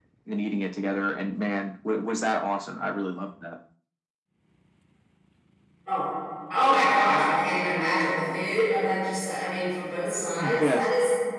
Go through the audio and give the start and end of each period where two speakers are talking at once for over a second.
none

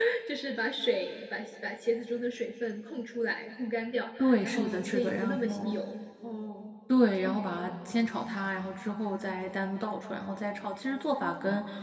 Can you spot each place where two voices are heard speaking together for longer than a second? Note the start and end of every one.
4.2-5.7

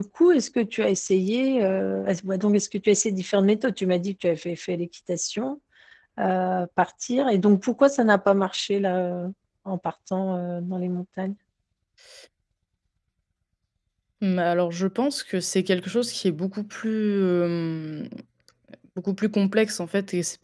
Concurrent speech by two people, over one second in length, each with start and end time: none

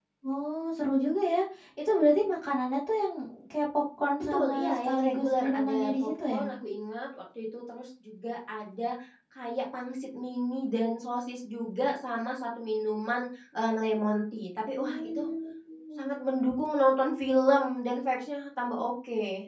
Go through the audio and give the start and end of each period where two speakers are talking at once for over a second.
4.2-6.5

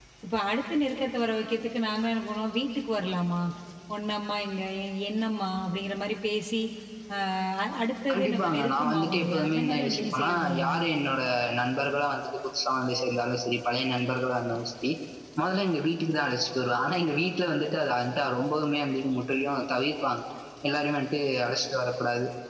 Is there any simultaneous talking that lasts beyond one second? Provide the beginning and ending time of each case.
8.1-10.7

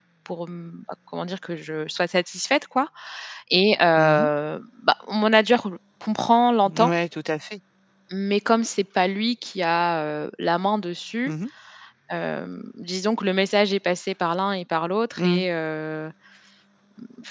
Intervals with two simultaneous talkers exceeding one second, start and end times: none

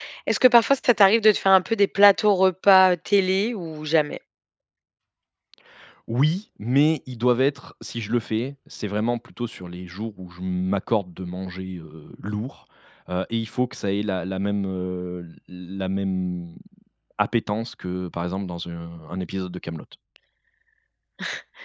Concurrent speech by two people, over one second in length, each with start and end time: none

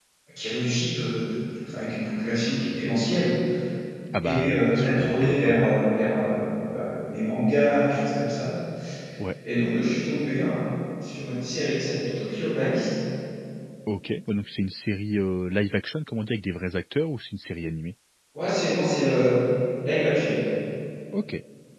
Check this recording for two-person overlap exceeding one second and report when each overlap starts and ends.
4.3-5.7

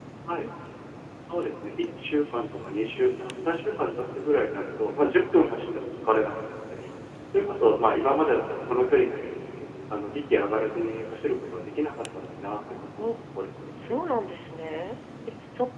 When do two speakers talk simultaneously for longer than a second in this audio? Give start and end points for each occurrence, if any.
none

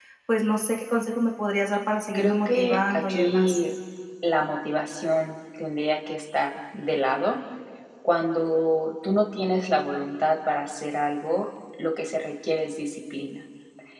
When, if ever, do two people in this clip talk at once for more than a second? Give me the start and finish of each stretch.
2.1-3.5

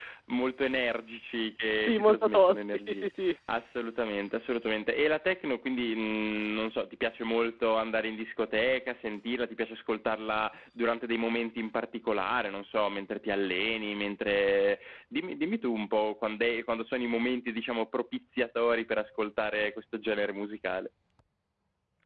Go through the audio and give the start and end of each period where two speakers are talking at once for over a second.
1.8-3.1

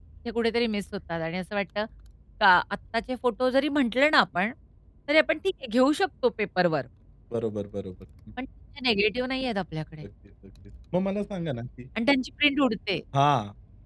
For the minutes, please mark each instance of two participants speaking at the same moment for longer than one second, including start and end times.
none

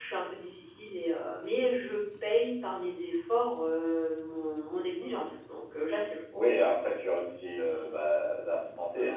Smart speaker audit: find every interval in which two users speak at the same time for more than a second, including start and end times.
none

